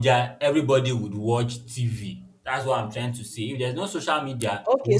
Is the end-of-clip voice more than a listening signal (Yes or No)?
Yes